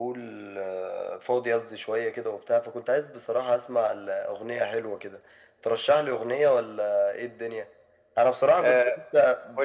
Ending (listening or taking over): taking over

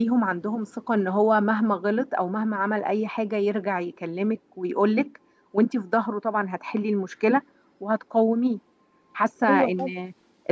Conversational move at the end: listening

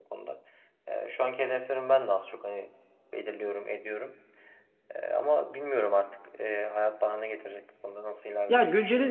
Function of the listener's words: taking over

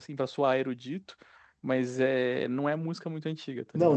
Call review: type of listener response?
taking over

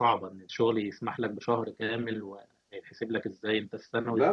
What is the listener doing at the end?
taking over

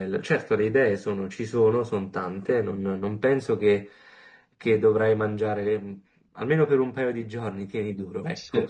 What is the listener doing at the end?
taking over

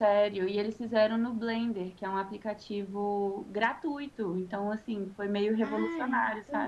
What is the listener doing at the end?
taking over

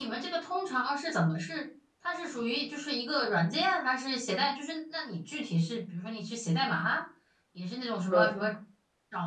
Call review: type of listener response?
listening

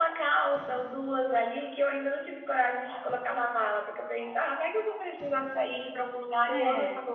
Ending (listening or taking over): listening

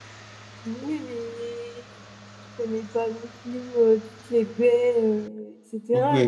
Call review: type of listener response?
taking over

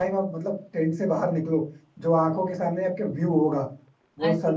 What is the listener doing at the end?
listening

